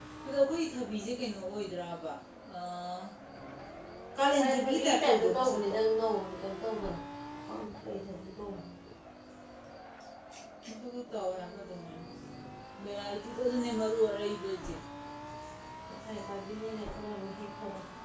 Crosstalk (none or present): present